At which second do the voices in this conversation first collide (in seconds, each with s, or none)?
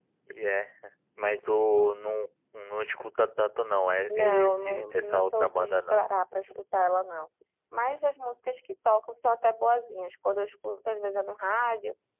4.1 s